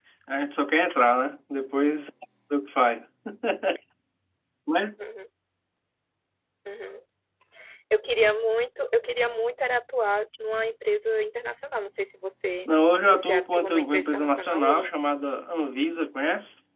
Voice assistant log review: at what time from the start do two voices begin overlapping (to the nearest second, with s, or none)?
13 s